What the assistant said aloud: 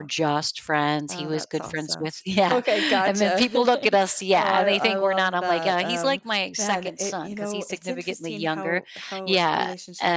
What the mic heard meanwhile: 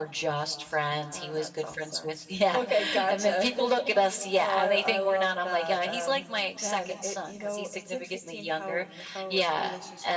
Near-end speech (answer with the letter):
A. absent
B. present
A